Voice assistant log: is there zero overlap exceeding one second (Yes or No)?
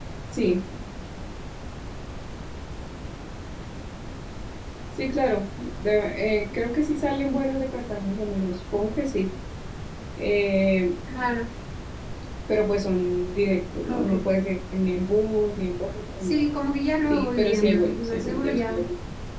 No